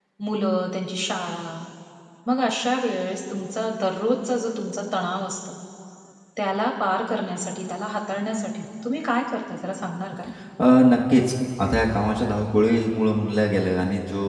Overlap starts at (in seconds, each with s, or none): none